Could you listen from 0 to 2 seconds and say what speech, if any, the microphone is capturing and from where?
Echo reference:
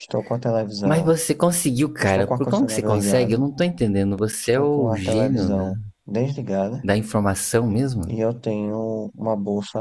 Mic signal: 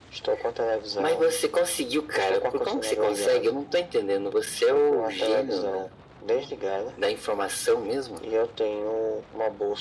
echo only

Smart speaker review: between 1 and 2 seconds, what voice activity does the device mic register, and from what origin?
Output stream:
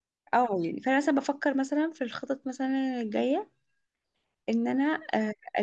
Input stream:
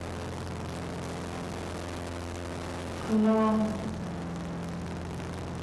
neither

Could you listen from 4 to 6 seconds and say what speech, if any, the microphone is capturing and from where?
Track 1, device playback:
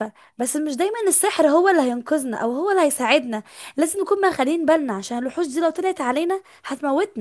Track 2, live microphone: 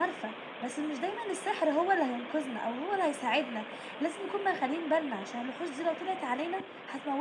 echo only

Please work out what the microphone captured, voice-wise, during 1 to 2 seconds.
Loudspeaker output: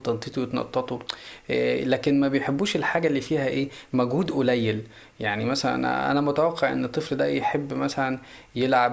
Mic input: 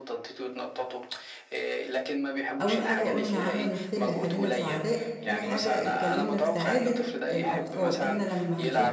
echo only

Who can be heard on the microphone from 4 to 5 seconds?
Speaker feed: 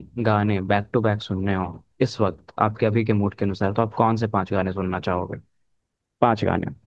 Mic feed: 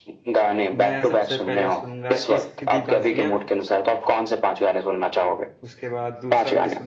echo only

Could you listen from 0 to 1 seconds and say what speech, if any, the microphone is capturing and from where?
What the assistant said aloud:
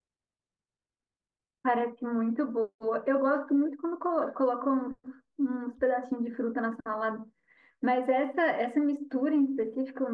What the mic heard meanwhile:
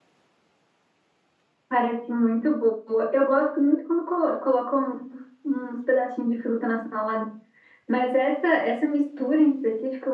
neither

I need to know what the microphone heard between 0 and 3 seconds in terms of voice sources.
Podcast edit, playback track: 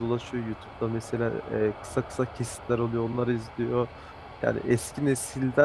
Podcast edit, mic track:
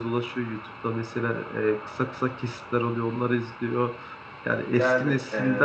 echo only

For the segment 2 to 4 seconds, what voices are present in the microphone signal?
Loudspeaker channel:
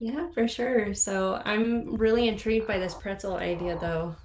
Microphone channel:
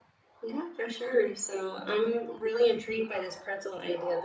echo only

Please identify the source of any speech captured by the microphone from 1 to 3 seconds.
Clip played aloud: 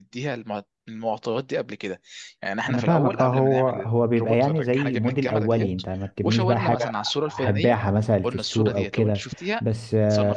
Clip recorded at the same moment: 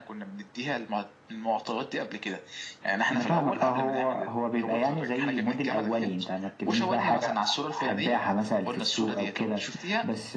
echo only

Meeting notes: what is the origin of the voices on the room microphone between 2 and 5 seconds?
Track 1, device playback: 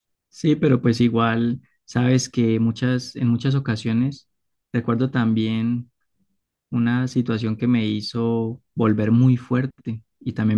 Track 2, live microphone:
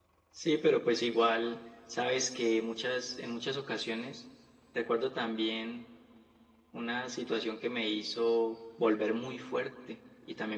echo only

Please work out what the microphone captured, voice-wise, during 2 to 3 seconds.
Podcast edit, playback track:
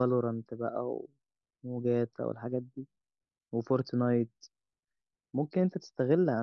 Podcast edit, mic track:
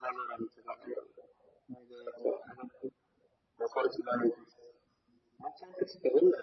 echo only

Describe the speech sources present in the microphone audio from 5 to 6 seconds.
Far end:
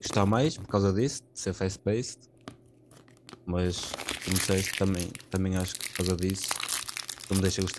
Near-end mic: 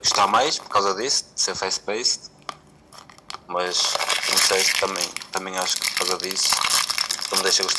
echo only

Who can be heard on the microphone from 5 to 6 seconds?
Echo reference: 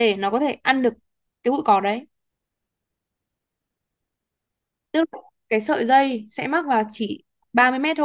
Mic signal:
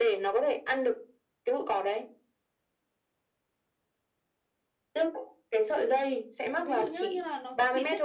echo only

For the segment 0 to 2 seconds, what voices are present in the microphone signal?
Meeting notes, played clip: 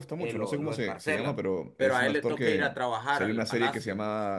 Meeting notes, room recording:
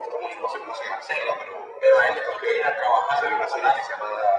echo only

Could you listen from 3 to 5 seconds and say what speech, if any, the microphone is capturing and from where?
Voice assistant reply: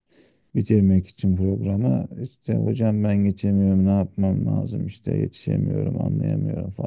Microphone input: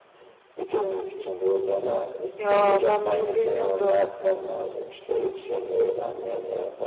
both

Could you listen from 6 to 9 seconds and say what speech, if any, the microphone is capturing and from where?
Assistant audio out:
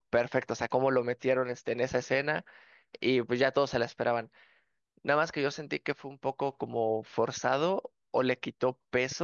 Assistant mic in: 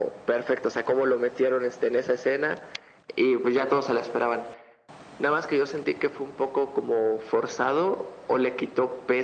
echo only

